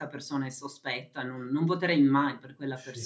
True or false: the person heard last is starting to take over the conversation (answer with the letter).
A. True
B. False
A